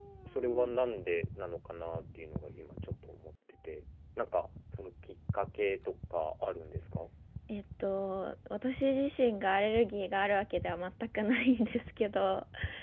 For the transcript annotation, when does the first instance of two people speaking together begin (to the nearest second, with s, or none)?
none